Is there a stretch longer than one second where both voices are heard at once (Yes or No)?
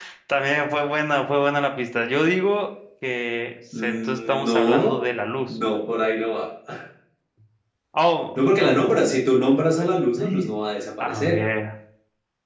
Yes